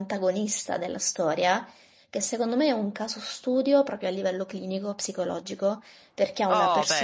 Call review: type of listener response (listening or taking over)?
listening